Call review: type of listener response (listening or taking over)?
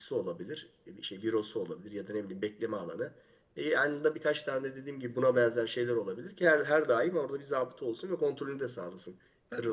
taking over